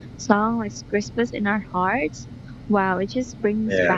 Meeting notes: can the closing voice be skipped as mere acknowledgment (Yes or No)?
Yes